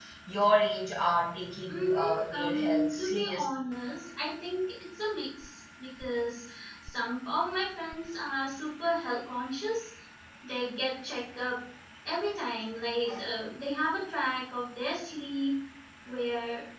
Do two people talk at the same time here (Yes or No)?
Yes